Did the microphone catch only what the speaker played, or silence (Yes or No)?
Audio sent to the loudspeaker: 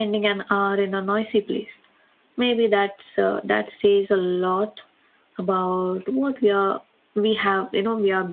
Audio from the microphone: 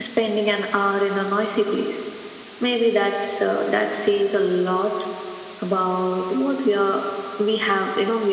Yes